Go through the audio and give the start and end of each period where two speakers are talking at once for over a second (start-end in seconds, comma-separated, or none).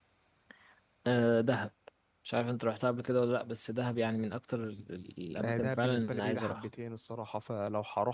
5.4-6.7